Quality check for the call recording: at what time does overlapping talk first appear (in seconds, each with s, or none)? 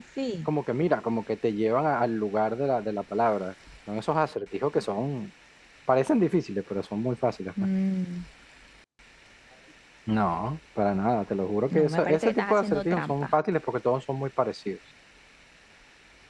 11.7 s